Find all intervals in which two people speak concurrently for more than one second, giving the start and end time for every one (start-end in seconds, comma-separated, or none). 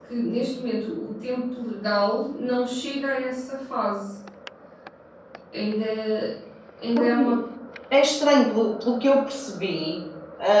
none